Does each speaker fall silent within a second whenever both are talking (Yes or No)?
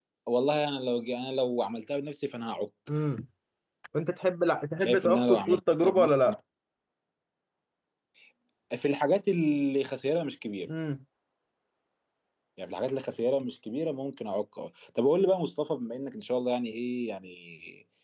No